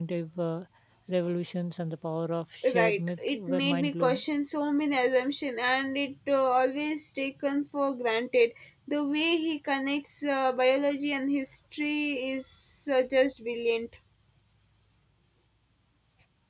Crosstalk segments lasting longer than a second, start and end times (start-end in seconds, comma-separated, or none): 2.7-4.2